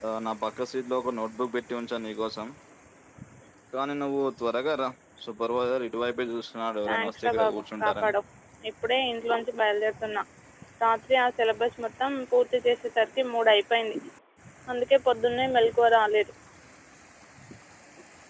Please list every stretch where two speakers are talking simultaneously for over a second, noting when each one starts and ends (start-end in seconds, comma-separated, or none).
6.9-8.1